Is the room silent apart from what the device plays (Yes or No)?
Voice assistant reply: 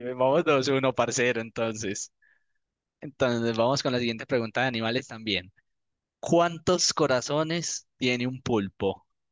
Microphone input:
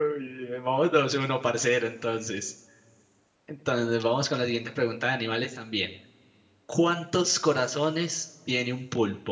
Yes